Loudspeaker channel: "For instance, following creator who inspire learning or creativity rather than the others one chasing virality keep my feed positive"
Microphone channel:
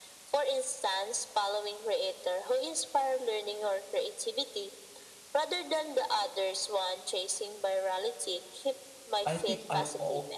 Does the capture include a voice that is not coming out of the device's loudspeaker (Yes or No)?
Yes